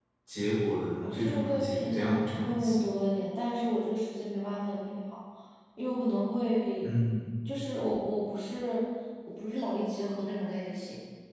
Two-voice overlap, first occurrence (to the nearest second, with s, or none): 1 s